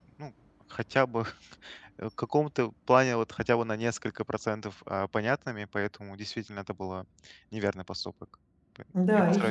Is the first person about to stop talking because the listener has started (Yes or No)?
Yes